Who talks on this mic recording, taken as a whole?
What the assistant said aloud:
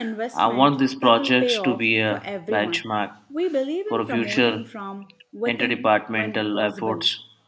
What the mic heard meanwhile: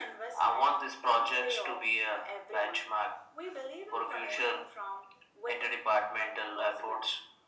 echo only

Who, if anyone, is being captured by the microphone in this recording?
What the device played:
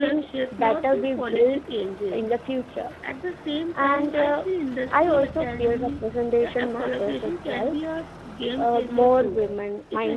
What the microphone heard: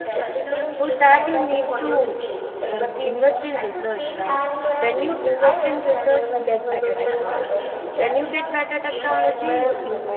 both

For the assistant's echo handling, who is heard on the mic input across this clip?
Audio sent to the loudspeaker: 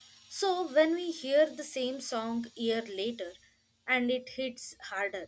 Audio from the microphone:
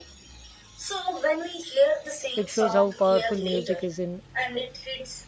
both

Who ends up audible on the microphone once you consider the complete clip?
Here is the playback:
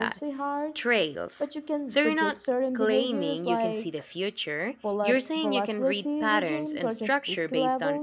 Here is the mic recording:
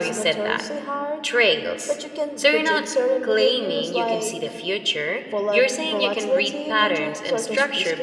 echo only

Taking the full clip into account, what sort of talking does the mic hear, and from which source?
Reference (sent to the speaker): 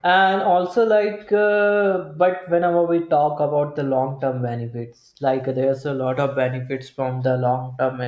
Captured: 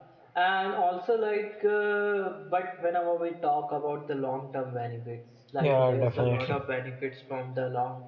both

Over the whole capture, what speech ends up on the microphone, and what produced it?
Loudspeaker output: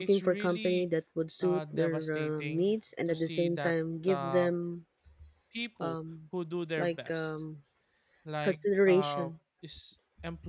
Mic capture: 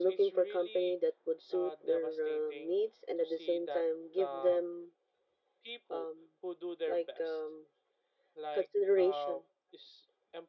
echo only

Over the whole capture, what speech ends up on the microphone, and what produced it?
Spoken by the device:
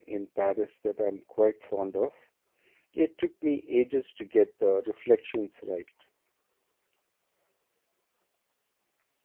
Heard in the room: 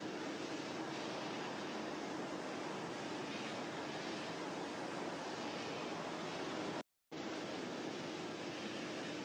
neither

